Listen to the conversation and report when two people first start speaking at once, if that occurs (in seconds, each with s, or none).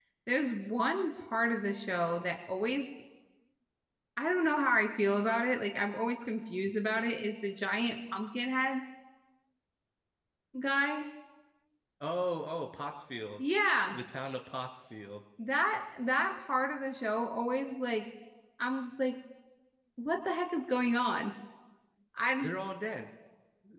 none